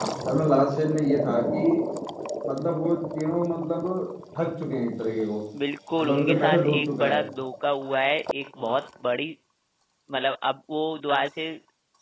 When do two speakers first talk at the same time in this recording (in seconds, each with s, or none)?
6.0 s